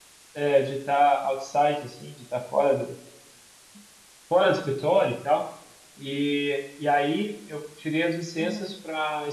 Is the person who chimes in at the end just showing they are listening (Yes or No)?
Yes